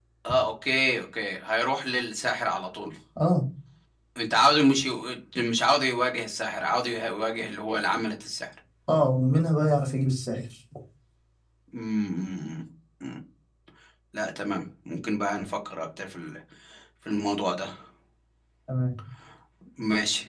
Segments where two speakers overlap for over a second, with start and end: none

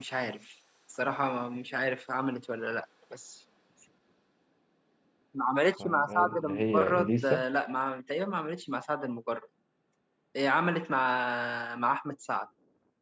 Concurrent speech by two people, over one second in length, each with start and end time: 5.8-7.4

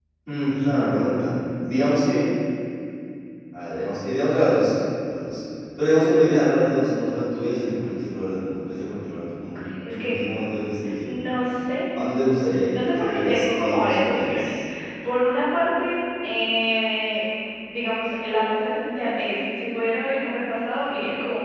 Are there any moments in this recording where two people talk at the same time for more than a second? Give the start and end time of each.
12.7-14.5

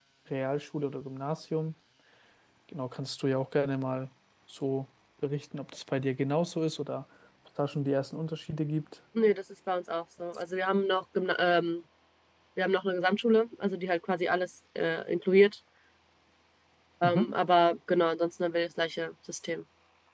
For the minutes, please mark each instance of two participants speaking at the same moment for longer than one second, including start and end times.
none

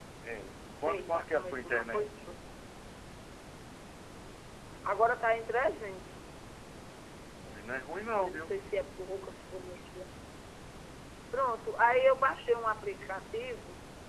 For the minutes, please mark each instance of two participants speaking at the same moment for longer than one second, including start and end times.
0.8-2.1

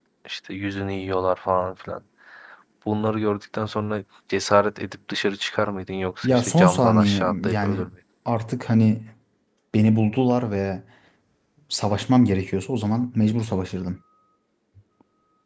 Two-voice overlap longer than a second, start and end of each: 6.2-7.9

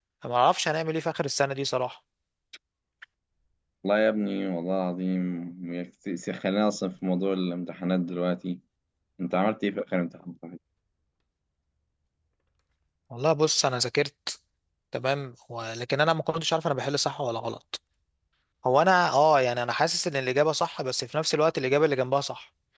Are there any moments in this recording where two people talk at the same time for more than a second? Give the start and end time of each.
none

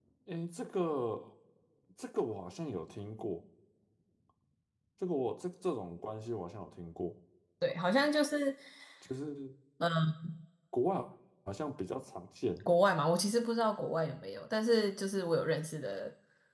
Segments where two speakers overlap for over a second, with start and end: none

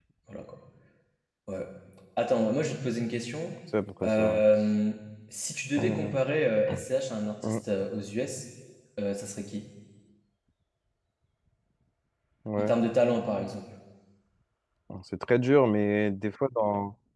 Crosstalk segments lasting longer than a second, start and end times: none

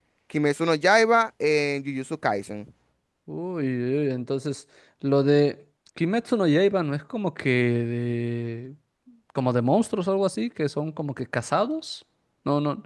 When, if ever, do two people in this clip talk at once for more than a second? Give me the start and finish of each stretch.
none

